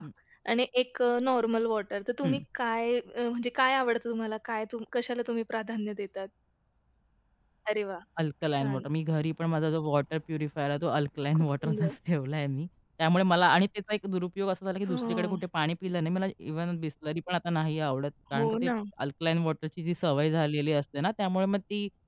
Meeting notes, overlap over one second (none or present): none